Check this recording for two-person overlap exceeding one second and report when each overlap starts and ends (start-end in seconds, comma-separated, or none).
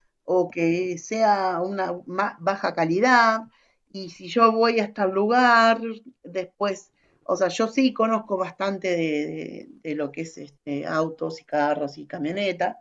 none